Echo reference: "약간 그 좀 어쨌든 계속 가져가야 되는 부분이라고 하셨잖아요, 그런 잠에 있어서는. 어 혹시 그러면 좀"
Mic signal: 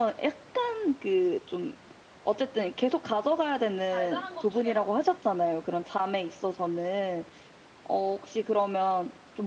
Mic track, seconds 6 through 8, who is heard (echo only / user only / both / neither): echo only